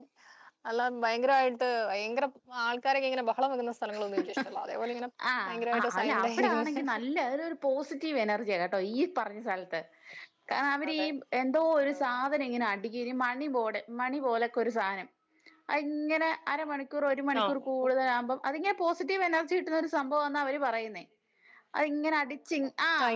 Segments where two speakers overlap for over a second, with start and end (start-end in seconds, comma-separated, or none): 5.5-7.0